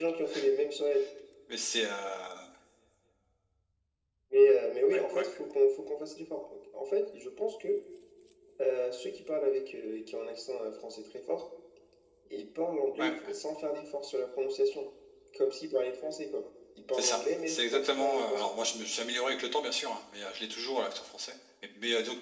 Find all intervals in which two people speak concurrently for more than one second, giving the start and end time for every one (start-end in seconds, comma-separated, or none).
16.9-18.5